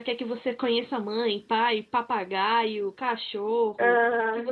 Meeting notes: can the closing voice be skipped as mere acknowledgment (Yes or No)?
Yes